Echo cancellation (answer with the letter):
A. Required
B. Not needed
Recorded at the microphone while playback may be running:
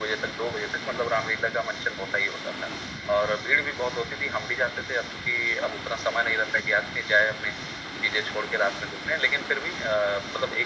A